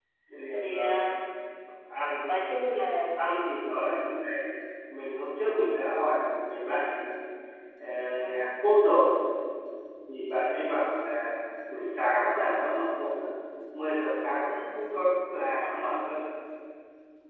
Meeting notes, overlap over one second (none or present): none